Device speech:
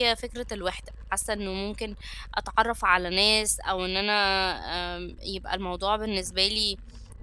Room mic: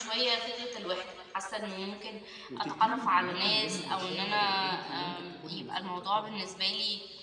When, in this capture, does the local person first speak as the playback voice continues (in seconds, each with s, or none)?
2.5 s